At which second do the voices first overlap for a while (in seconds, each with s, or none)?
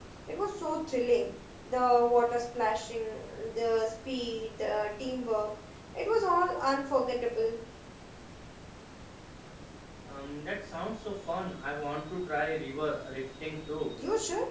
none